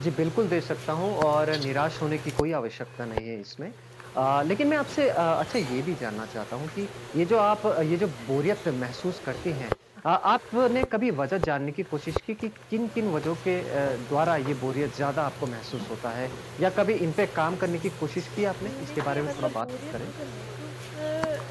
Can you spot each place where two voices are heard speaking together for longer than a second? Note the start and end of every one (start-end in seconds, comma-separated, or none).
18.6-20.1